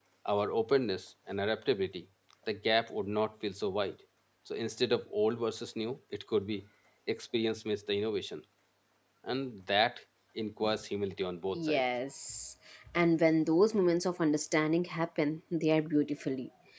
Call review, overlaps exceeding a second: none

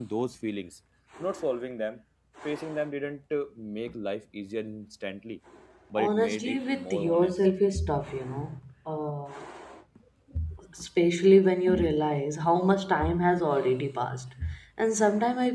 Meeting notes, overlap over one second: present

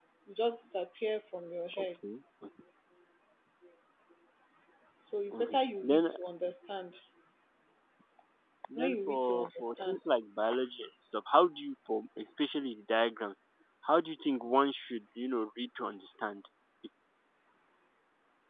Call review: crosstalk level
present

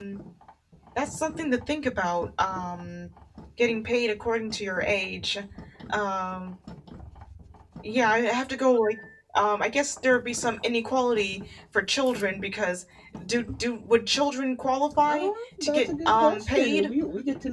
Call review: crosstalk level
present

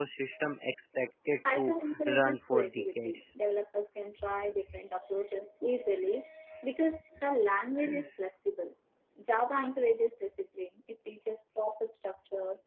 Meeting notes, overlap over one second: present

